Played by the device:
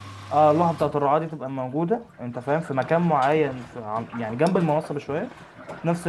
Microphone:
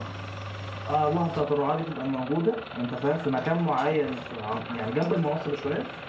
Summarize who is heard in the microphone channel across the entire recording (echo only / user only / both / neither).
echo only